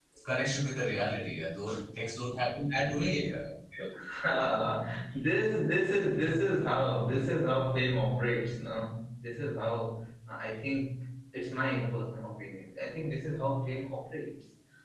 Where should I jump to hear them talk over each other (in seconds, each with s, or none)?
none